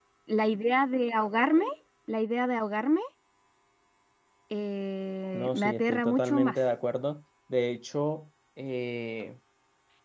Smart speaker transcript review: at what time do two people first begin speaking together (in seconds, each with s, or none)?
5.3 s